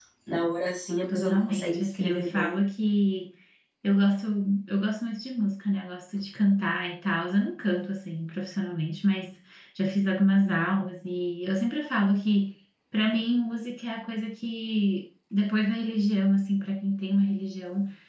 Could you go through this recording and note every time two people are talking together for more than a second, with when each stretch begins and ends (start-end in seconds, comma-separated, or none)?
1.1-2.5